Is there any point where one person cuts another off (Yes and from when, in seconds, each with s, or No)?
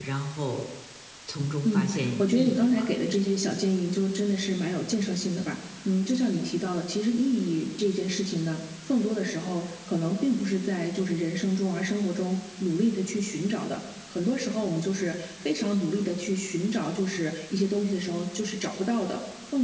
Yes, from 1.6 s